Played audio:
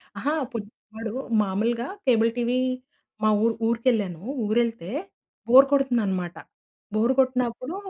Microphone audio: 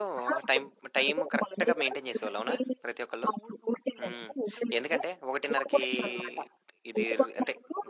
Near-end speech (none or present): present